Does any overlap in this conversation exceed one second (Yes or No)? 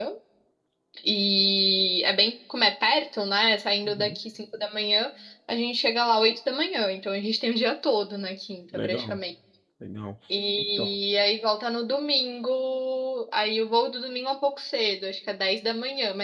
No